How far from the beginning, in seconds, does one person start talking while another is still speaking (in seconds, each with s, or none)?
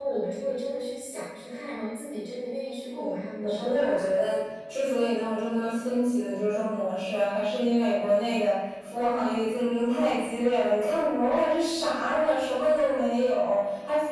3.0 s